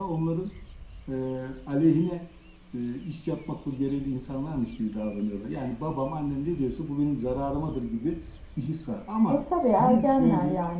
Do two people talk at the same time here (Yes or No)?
Yes